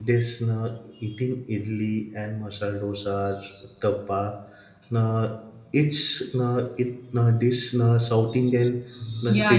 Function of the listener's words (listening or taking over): taking over